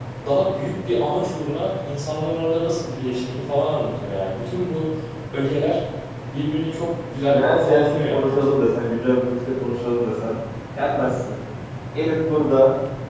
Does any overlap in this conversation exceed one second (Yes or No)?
Yes